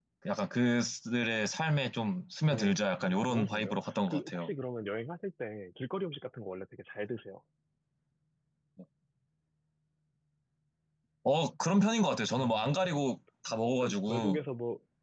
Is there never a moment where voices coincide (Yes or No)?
No